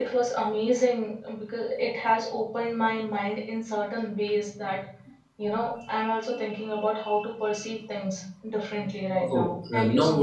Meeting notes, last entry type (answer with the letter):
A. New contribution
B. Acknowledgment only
A